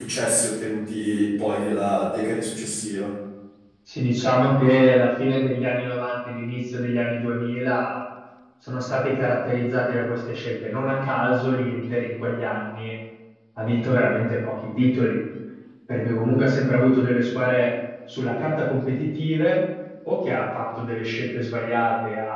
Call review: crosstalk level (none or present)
none